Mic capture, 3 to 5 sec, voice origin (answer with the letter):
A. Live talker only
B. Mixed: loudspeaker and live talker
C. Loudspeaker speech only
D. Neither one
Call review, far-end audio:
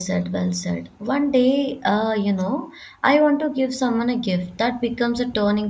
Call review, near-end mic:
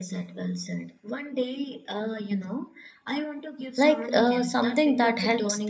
B